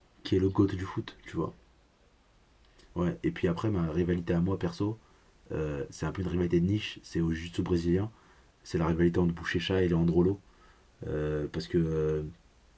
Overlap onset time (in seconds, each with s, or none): none